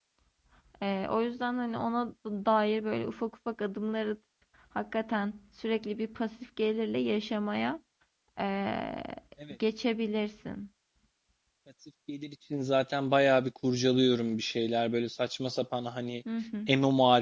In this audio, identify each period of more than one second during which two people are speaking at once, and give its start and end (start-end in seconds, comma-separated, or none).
none